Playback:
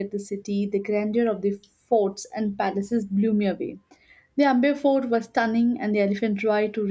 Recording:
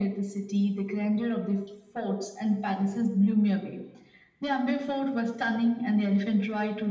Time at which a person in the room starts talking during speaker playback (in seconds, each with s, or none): none